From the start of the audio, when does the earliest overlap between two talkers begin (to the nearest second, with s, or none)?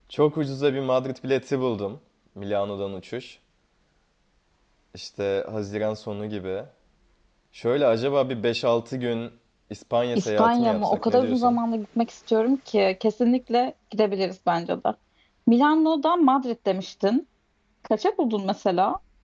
10 s